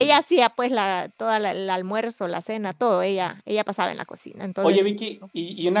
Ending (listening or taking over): taking over